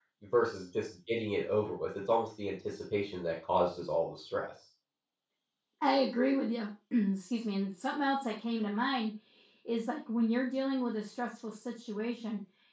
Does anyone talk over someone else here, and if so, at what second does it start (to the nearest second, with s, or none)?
none